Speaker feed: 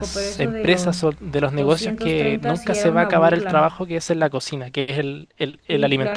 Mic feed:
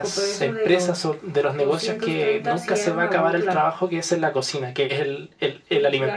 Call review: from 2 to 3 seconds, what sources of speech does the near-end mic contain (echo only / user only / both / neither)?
echo only